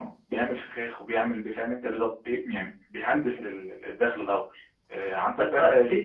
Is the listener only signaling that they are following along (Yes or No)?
No